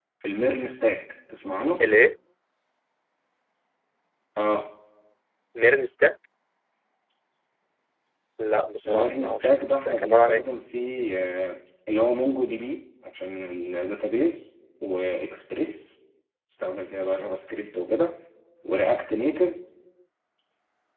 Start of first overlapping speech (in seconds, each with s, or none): 8.8 s